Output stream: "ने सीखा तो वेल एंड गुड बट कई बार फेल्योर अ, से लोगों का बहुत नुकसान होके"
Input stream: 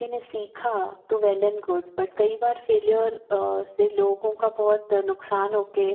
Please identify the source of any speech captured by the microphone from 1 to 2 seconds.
echo only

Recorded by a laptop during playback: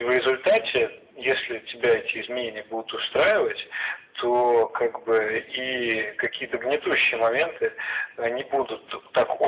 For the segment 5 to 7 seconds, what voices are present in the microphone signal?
echo only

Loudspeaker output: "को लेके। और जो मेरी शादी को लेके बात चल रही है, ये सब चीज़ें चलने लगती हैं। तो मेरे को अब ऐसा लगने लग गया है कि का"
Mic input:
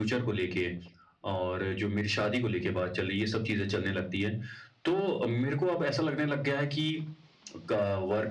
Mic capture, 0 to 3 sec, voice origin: echo only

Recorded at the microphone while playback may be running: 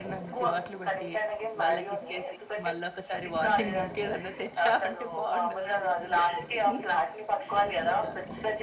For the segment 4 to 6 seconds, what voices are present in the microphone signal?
both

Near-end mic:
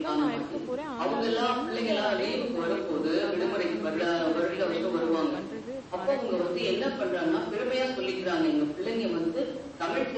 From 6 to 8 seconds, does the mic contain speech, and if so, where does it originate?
both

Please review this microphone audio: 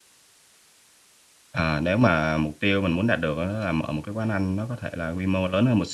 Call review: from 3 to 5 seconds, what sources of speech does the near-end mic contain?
user only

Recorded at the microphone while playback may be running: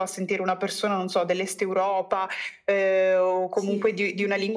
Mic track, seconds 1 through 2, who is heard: echo only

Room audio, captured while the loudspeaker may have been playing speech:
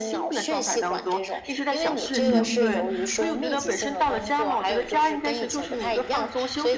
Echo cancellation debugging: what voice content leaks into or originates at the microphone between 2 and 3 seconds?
both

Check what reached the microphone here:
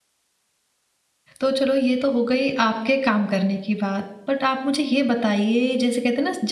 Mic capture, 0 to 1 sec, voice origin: neither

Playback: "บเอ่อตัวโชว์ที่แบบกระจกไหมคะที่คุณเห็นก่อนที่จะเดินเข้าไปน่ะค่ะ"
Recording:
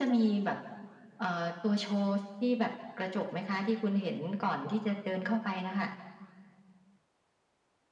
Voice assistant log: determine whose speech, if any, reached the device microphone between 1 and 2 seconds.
echo only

